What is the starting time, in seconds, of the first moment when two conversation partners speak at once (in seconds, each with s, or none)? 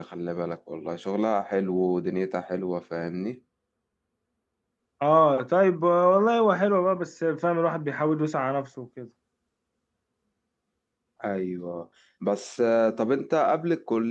none